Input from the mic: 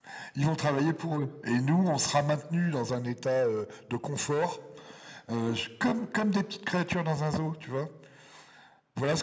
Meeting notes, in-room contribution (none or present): none